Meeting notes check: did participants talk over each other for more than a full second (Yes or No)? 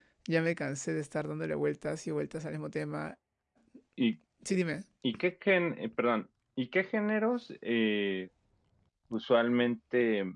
No